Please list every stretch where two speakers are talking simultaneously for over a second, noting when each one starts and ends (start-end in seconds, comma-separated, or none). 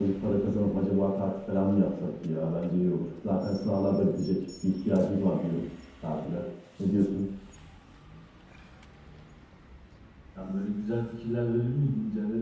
none